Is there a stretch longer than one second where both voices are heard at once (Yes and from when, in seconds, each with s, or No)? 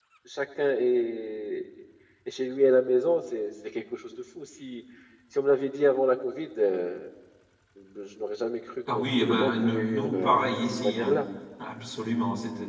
Yes, from 8.9 s